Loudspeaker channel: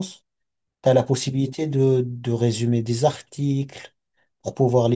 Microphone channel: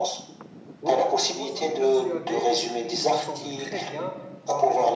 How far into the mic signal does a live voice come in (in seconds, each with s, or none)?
0.8 s